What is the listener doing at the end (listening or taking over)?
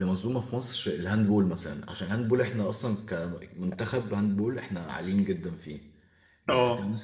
listening